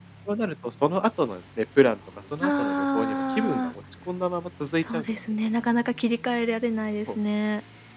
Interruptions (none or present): present